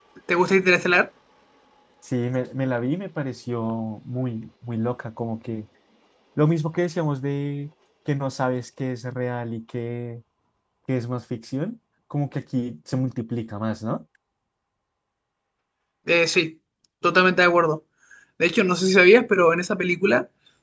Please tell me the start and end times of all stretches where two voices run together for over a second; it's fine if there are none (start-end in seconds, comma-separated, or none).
none